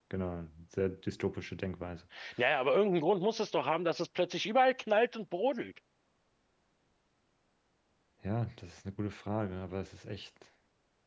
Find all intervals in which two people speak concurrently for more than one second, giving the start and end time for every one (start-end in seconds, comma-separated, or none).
none